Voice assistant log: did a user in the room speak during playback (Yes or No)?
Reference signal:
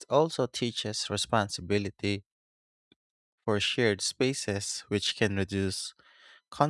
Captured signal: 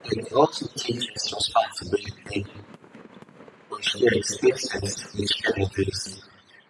No